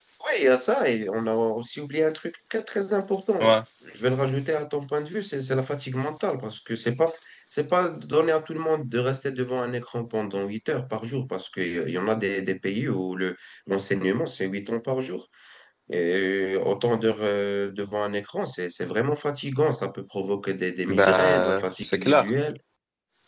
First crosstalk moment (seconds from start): 20.9 s

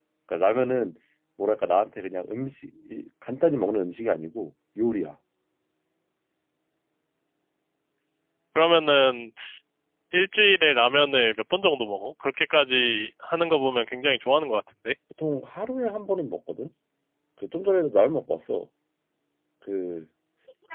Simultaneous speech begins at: none

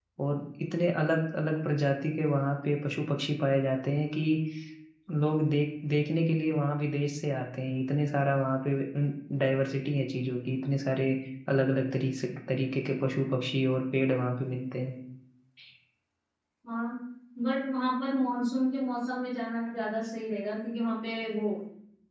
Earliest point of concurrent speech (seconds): none

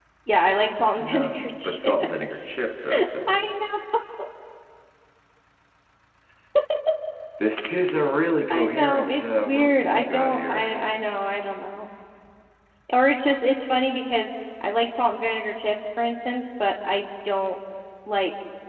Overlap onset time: 1.0 s

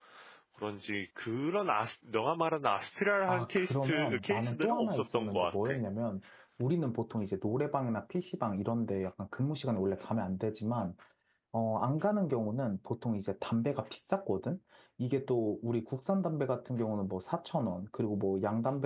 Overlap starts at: 3.3 s

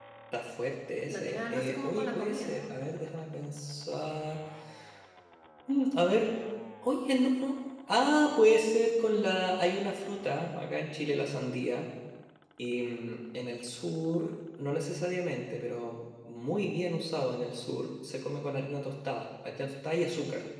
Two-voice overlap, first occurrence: 1.1 s

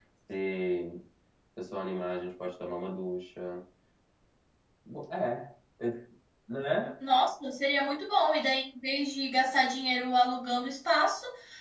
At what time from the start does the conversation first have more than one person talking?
none

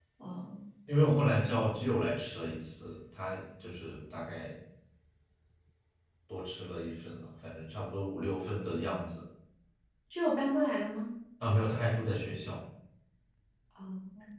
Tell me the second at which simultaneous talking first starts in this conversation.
none

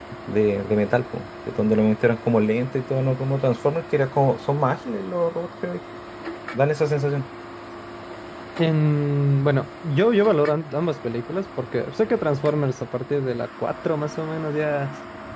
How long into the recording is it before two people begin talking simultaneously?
none

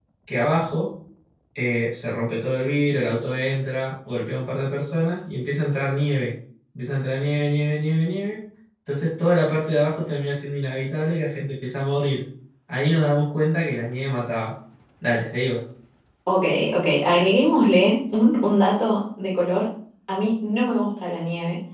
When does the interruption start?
none

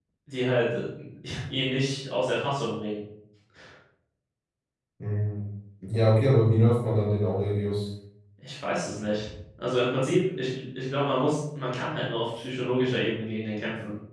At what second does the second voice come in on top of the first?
none

